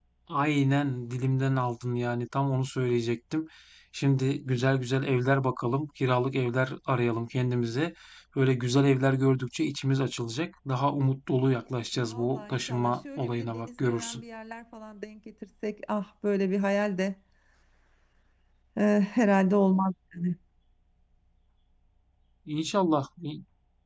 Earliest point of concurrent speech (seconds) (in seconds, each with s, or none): 12.1 s